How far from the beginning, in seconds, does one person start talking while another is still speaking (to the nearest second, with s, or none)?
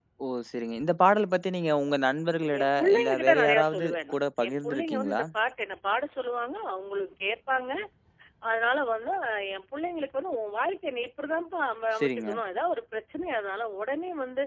3 s